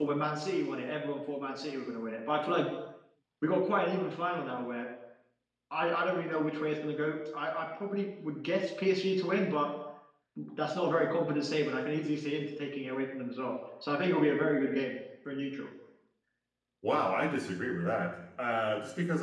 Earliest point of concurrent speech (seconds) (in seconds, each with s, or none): none